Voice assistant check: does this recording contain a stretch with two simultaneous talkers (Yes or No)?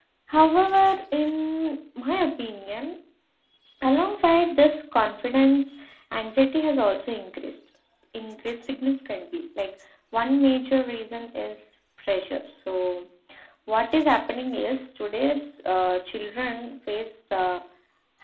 No